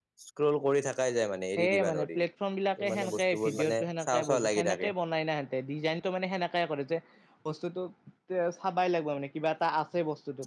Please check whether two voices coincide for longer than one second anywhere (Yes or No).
Yes